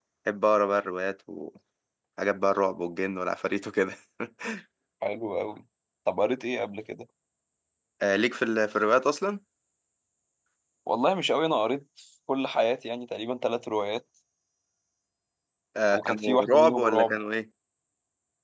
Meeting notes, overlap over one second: present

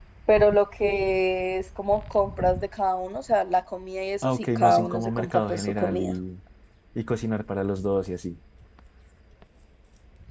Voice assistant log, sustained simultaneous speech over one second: present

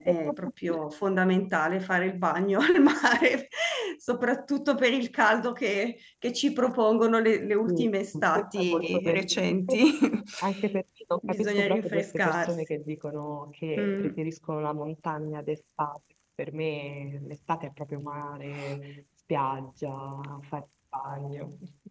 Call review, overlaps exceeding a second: present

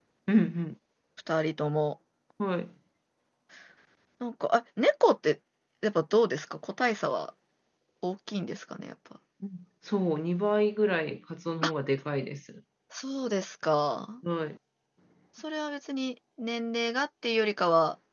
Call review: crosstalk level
none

